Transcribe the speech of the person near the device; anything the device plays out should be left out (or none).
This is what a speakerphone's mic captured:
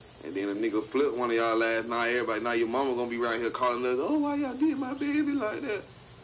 none